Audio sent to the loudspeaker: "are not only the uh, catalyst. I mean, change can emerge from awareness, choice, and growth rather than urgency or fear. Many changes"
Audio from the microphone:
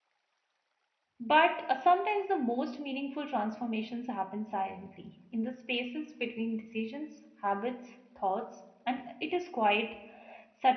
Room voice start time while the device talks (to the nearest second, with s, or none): 1 s